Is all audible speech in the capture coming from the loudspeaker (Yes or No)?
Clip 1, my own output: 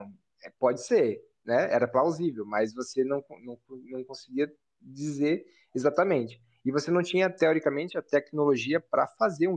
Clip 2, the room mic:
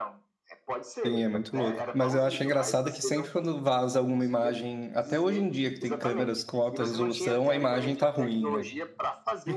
No